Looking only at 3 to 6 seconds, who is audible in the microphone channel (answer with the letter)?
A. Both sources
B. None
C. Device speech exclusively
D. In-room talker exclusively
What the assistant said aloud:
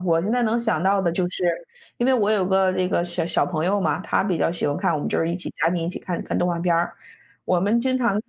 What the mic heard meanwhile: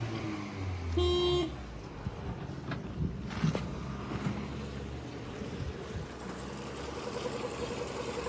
B